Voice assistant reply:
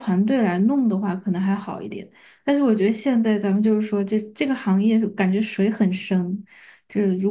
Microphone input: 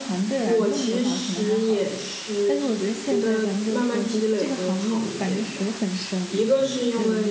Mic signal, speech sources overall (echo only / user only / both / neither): both